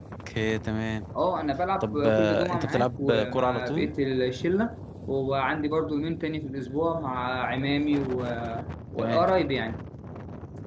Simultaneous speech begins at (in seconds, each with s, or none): 1.8 s